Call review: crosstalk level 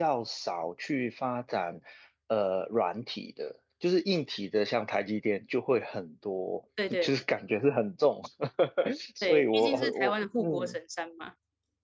present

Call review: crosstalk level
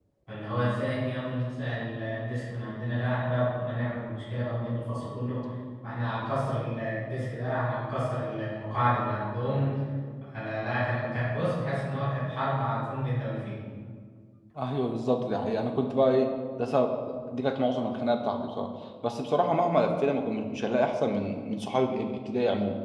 none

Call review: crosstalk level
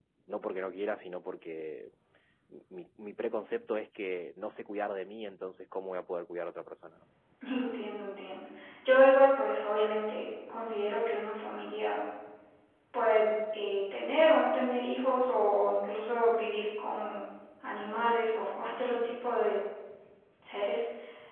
none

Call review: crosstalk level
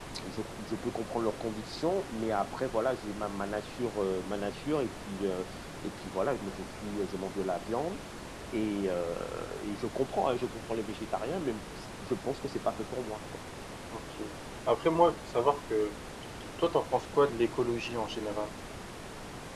none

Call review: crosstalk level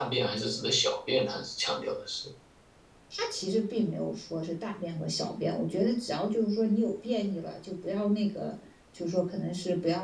none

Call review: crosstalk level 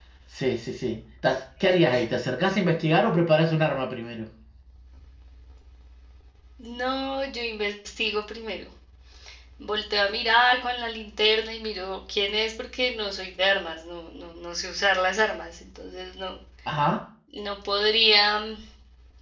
none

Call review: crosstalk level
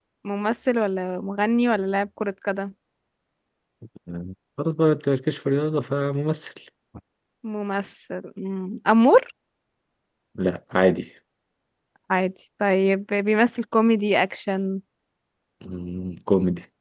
none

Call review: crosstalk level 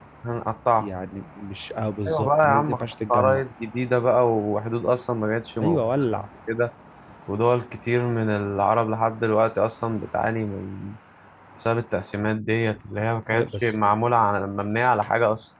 present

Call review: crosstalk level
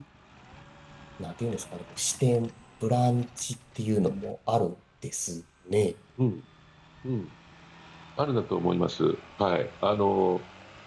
none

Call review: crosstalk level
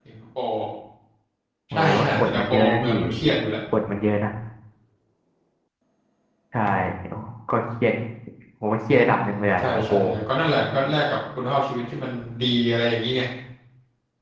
present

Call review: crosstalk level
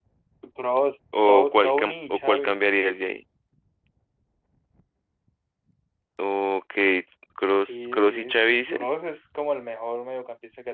present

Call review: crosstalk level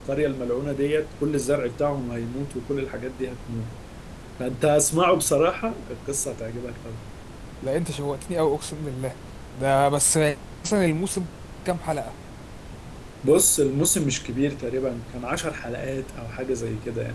none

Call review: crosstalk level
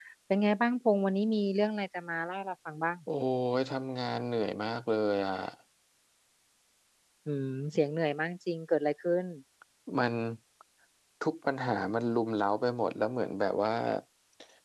none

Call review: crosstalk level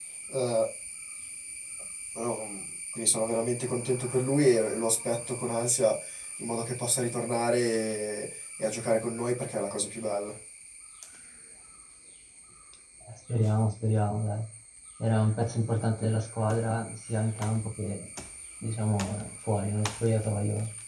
none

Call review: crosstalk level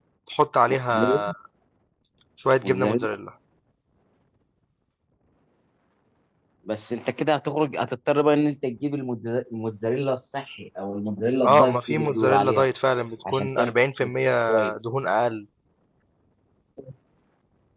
present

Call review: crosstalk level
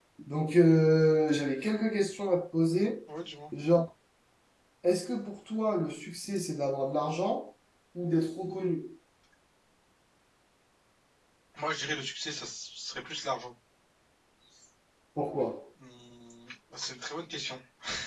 none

